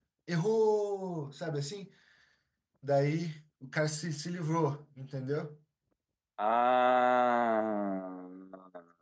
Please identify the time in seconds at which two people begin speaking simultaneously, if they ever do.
none

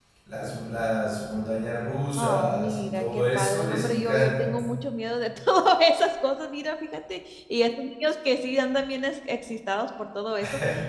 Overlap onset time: 2.1 s

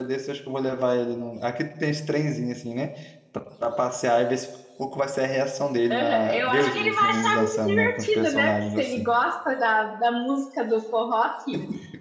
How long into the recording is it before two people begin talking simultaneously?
5.9 s

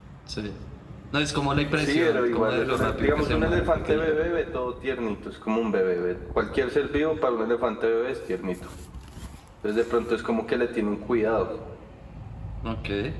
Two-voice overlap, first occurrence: 1.7 s

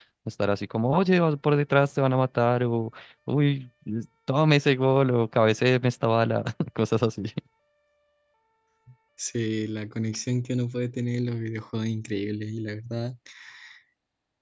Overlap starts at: none

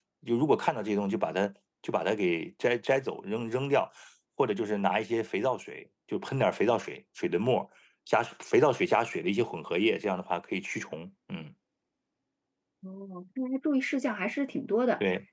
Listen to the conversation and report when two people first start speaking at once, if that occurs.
none

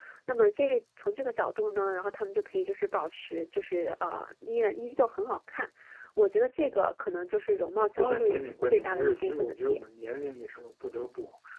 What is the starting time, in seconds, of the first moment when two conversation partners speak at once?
8.0 s

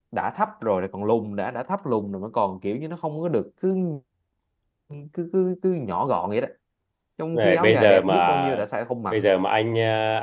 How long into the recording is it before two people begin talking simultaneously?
7.3 s

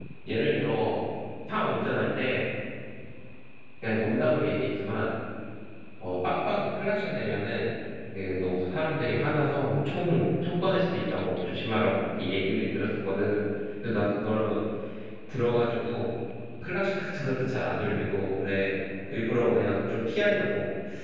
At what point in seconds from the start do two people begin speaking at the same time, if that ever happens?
none

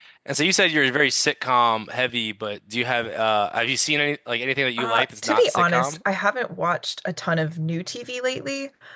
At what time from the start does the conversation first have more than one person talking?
4.8 s

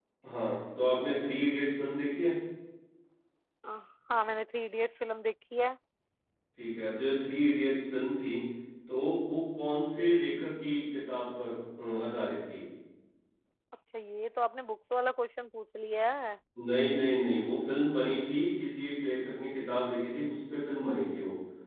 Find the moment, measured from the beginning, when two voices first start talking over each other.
none

